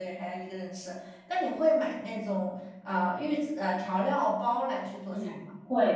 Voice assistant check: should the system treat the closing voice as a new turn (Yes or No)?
Yes